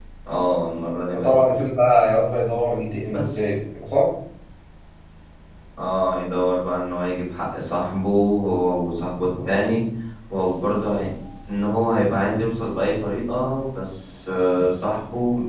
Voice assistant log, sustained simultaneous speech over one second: none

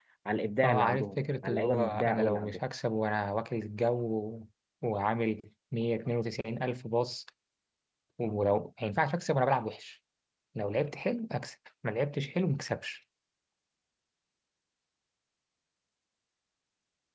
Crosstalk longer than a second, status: present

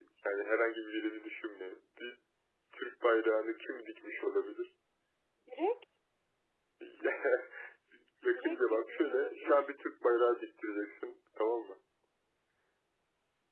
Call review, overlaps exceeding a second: present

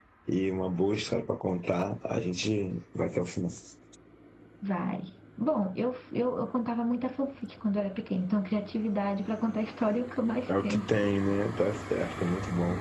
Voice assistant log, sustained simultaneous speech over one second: none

